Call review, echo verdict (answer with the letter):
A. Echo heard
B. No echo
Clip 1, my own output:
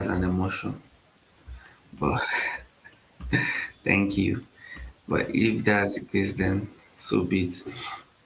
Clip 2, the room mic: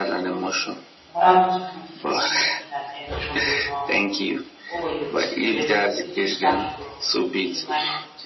A